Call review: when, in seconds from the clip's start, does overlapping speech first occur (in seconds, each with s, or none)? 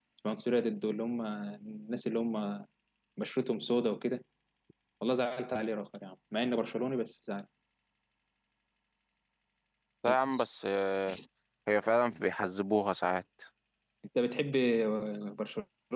none